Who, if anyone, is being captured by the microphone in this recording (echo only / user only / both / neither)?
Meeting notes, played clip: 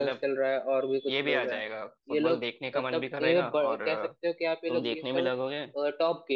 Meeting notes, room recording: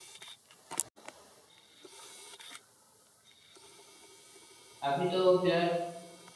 user only